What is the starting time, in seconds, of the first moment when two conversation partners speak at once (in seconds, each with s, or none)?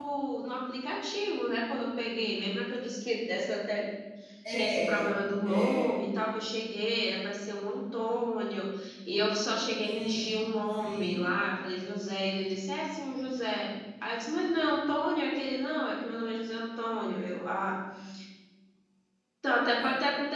4.5 s